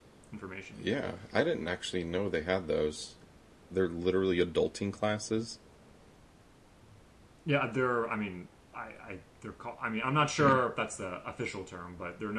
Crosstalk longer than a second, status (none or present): none